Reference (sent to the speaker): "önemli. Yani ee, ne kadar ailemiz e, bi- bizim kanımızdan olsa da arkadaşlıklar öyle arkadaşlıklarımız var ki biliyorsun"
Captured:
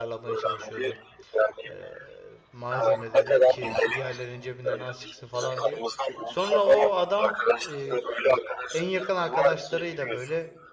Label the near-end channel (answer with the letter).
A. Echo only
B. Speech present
B